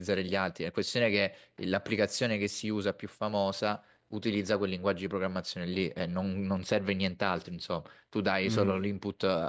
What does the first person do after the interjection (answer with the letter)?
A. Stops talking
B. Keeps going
B